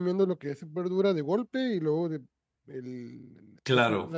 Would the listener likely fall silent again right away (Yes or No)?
Yes